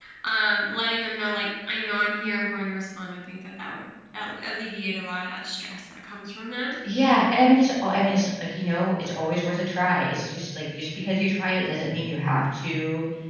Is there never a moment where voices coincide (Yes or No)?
Yes